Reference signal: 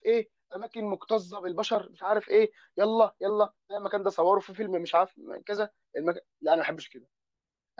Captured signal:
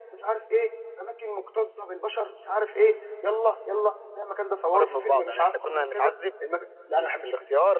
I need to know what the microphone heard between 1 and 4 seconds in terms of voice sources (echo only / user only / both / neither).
echo only